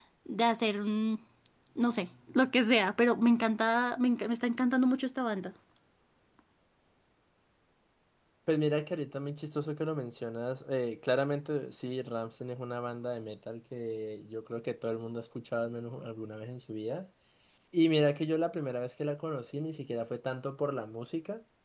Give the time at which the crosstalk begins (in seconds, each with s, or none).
none